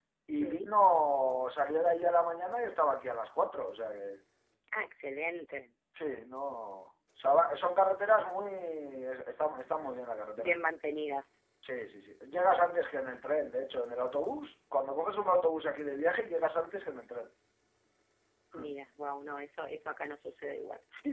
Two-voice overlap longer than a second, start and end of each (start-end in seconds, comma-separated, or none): none